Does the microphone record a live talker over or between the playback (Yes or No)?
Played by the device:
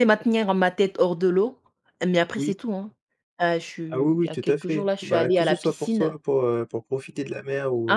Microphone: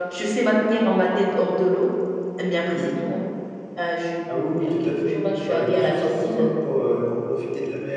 No